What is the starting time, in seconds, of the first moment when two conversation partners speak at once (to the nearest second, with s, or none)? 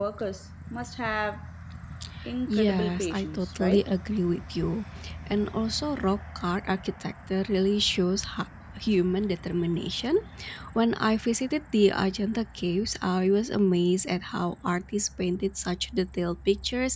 2 s